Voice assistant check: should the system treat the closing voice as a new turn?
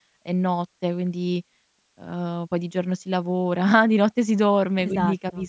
No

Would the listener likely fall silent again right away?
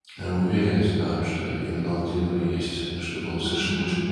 No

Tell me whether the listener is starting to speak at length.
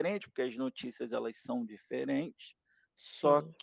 No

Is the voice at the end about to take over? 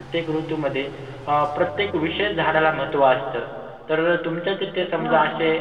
No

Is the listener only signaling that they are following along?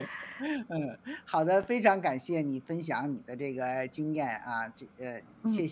No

